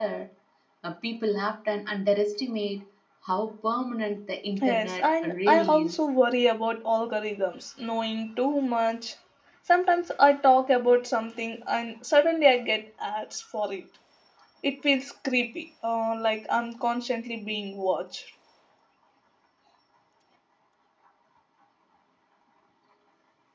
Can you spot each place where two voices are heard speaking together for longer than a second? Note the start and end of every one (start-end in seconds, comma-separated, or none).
4.6-6.0